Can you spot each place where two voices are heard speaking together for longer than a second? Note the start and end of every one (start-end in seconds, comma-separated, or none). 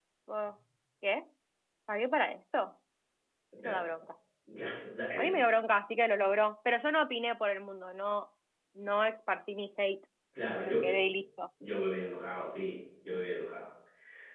none